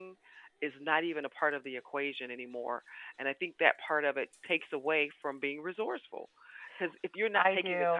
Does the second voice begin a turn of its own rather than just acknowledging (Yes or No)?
No